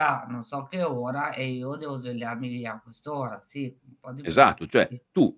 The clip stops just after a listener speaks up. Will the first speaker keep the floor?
No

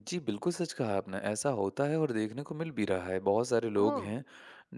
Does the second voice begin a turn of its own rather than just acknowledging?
No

